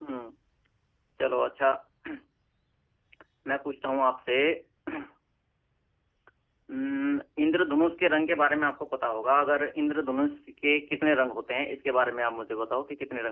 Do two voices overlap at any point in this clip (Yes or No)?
No